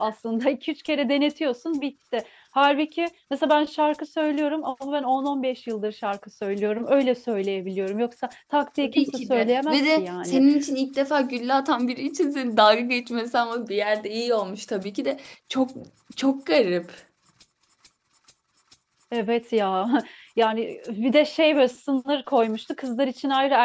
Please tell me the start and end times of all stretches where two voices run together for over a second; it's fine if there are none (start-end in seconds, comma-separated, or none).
8.8-10.4